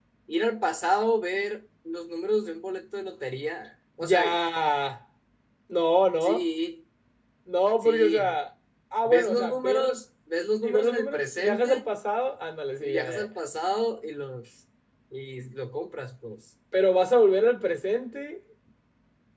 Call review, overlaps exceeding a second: present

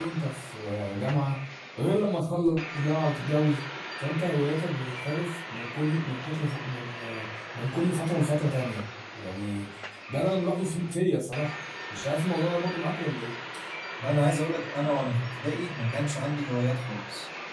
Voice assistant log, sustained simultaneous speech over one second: none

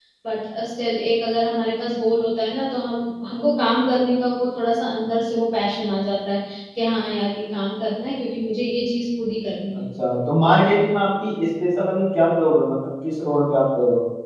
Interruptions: none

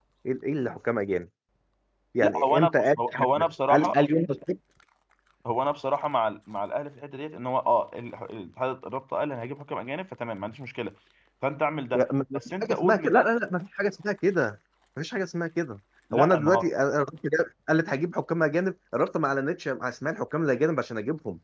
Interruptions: present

